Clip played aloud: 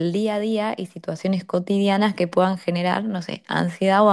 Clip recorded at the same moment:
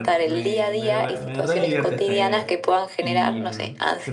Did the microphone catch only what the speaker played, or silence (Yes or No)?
No